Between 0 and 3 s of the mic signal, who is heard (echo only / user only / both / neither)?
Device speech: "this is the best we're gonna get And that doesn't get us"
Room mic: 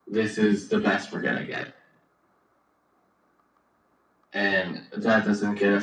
echo only